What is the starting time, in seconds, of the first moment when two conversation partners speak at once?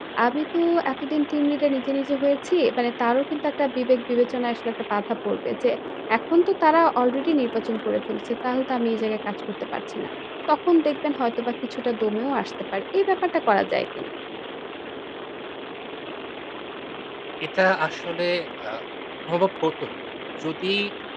none

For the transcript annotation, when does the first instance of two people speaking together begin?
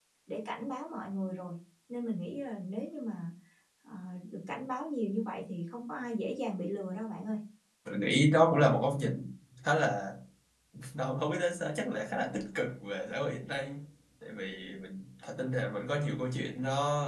none

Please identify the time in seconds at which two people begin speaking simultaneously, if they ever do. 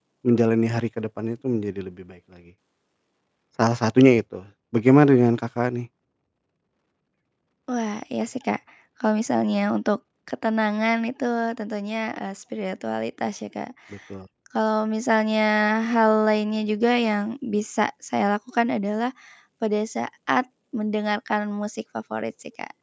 none

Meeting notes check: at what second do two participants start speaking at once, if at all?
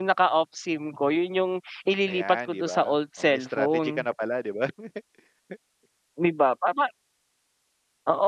2.1 s

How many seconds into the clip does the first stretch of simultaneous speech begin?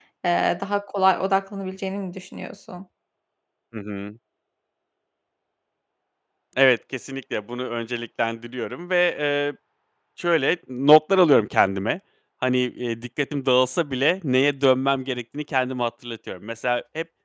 none

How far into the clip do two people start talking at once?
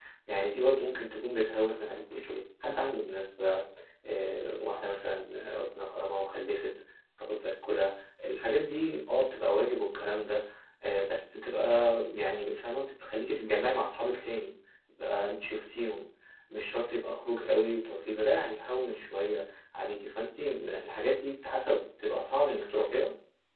none

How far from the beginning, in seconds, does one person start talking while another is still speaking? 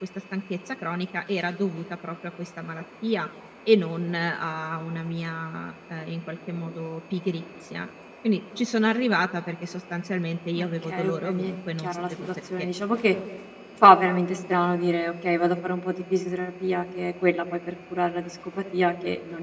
10.6 s

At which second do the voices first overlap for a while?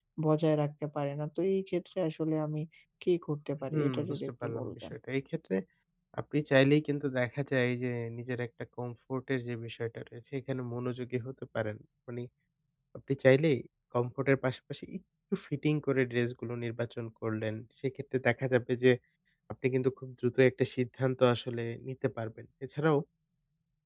3.7 s

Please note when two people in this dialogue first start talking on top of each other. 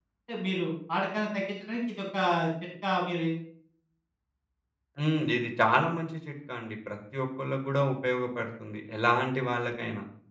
none

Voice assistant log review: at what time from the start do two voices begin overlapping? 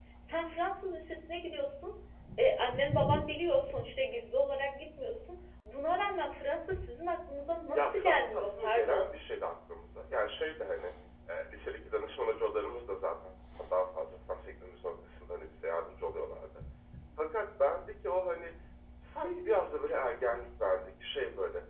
7.7 s

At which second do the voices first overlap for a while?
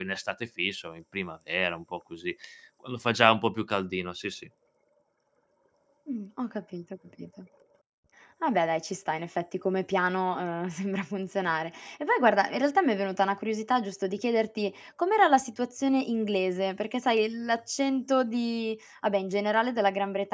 none

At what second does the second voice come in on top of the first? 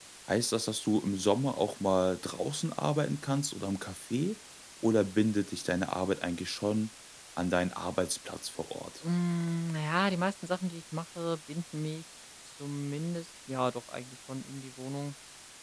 none

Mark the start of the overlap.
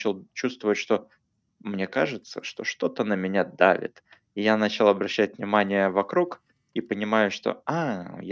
none

